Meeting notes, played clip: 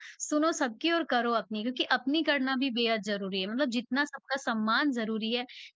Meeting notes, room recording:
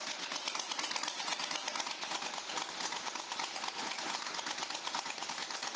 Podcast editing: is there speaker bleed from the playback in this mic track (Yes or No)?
No